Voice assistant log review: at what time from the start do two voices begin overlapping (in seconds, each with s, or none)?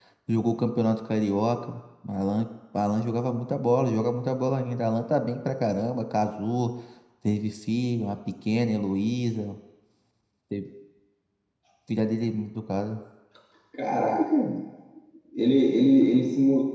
none